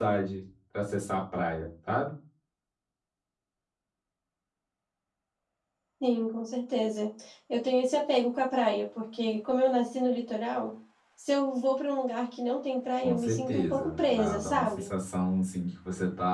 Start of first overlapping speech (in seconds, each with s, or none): 13.0 s